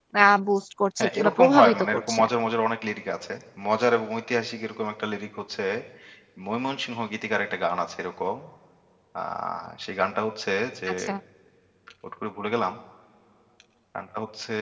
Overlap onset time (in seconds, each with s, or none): 1.0 s